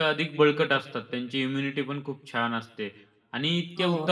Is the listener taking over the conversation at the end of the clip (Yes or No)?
No